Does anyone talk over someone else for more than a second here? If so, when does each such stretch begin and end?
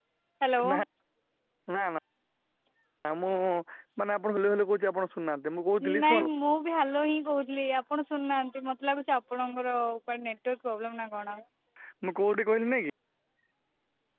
none

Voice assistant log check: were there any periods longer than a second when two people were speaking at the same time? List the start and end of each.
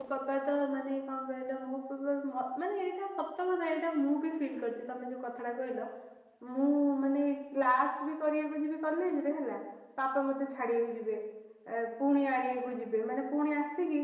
none

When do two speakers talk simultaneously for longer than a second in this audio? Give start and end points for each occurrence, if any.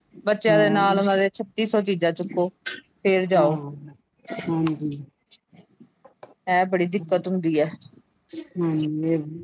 none

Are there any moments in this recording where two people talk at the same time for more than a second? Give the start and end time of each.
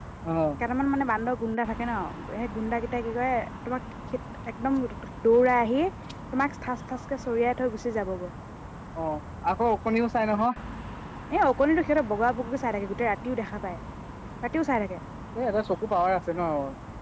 none

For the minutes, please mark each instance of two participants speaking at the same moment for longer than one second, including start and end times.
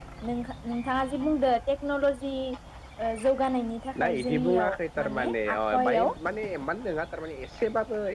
4.0-6.1

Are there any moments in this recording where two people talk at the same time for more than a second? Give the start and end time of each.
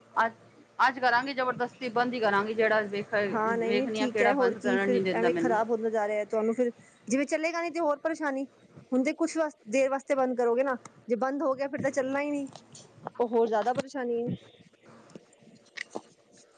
3.3-5.6

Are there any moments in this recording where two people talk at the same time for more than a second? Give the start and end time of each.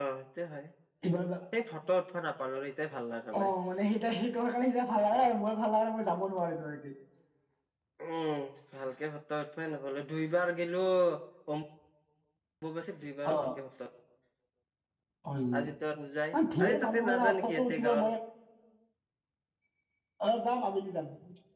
16.3-18.1

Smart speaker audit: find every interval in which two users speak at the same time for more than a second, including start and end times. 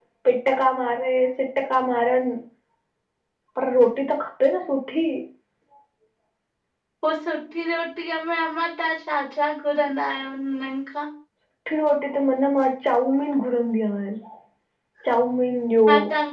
none

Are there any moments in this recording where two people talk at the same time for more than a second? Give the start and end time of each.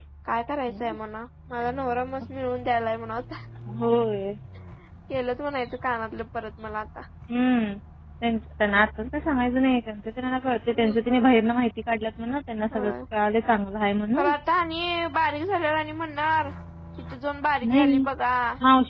none

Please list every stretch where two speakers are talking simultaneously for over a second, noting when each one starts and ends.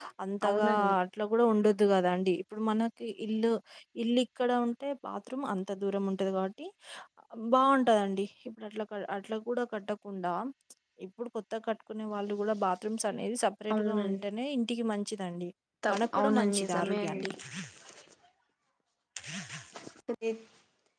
15.9-17.2

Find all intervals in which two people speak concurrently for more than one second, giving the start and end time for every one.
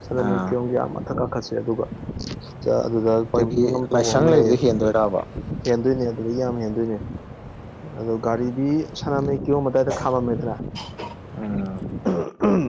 3.4-4.6

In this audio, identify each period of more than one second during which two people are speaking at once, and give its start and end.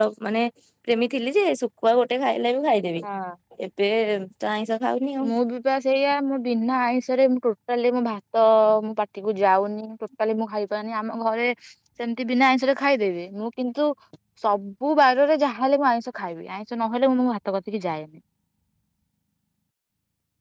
none

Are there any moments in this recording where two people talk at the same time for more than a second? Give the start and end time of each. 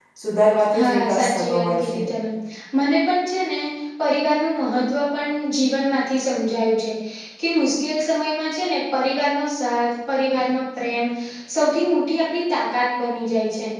0.8-2.0

